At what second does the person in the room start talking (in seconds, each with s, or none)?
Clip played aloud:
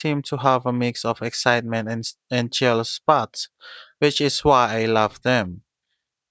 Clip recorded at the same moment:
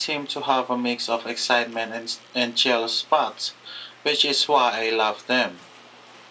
none